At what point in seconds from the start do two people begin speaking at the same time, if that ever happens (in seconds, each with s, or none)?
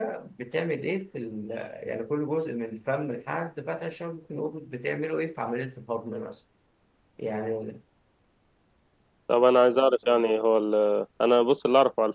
none